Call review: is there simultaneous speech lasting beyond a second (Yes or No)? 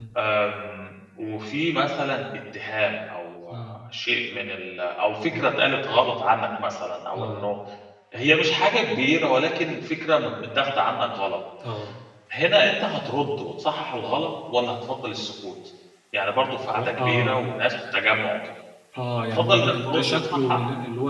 Yes